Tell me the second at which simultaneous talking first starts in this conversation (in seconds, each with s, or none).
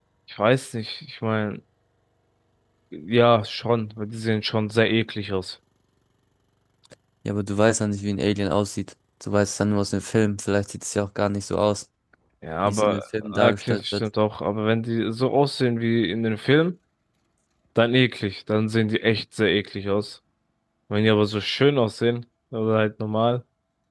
12.7 s